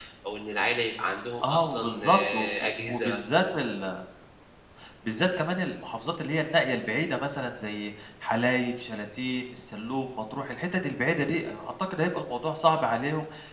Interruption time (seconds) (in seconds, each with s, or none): 1.4 s